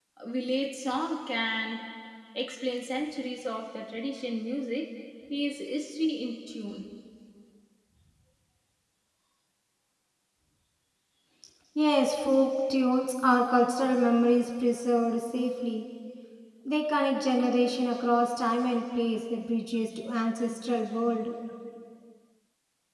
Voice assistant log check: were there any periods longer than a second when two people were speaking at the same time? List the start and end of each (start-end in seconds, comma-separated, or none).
none